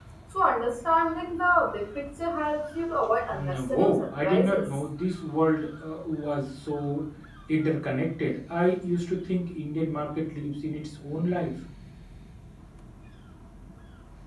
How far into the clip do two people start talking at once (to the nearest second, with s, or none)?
3 s